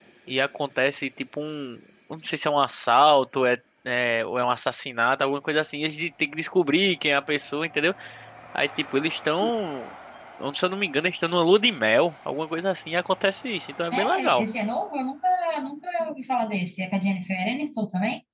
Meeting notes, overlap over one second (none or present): none